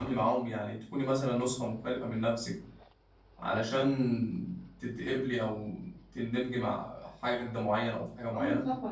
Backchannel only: No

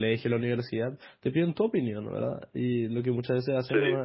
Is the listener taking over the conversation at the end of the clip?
No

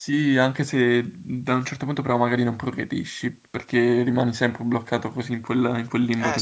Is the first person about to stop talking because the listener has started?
Yes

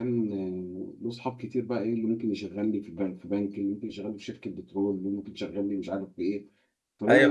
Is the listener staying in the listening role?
No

